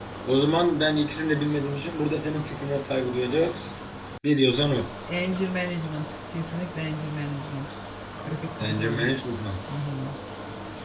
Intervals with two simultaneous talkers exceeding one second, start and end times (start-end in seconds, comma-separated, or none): none